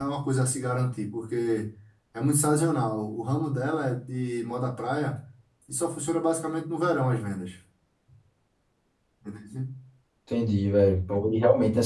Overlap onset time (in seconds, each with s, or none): none